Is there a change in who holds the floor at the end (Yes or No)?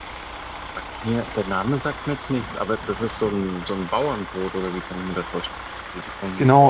Yes